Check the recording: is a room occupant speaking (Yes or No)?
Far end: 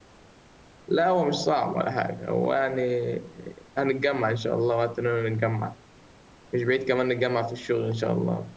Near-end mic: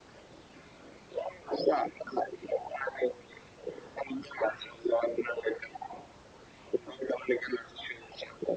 No